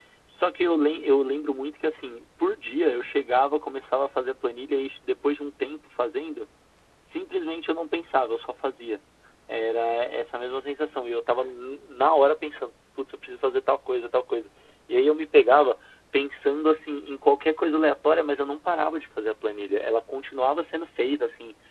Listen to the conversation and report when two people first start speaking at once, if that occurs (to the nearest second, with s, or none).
none